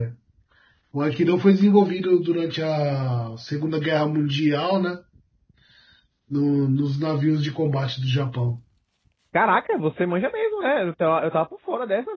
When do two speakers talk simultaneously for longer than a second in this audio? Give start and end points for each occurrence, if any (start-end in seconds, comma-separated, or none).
none